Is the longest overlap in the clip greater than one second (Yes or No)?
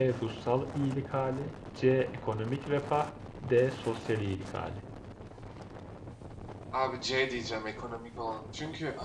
No